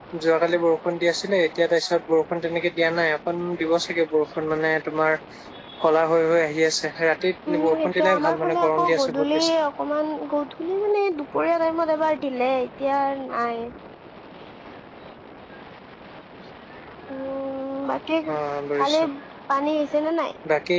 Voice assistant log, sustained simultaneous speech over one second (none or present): present